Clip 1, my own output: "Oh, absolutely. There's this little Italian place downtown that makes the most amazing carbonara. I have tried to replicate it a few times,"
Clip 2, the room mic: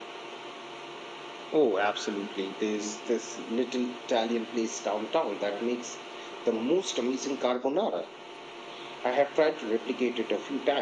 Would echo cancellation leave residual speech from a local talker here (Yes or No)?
No